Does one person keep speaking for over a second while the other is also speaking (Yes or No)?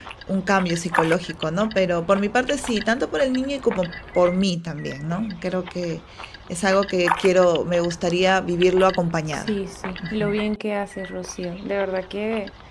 No